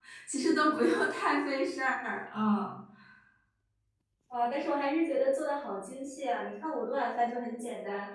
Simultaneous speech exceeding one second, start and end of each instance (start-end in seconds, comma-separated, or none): none